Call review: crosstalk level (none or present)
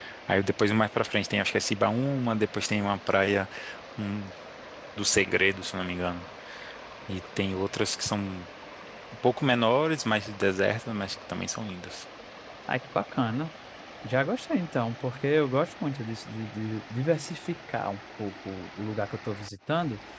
none